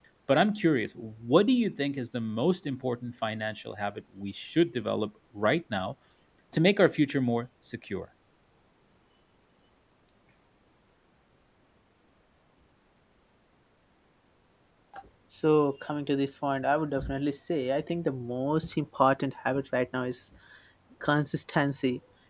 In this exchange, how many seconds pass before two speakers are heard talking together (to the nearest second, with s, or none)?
none